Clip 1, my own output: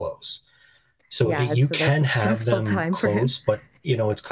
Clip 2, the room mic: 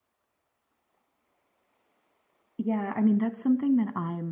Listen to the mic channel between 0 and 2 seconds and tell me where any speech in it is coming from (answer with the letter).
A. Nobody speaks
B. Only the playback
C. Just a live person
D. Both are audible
A